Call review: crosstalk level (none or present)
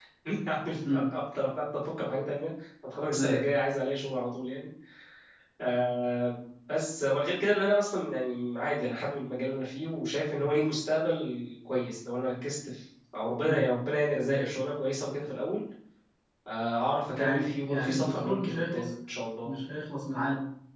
present